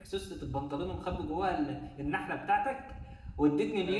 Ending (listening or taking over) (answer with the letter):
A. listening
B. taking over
A